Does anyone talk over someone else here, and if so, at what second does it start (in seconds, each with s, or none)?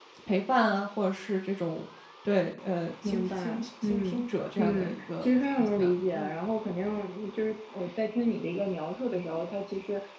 3.0 s